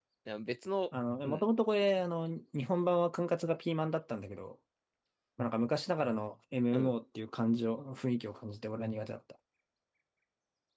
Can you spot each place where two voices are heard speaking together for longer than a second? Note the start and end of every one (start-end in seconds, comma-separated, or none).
none